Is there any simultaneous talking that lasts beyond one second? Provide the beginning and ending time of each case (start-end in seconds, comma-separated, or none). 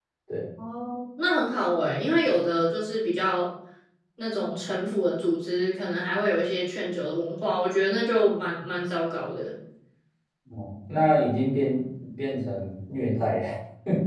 none